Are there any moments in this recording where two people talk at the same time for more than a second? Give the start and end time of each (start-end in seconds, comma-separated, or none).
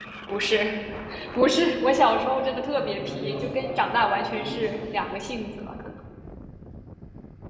2.8-5.0